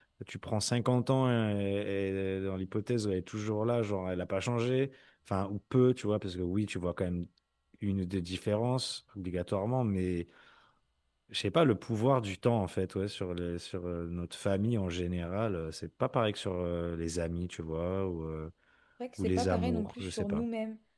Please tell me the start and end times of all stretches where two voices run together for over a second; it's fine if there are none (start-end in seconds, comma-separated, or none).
19.2-20.4